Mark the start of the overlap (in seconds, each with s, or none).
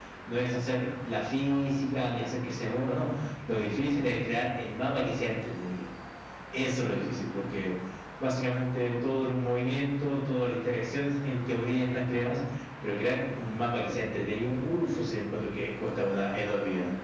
none